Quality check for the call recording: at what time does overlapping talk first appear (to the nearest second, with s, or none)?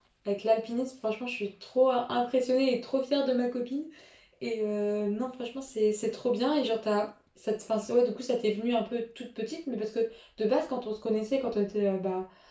none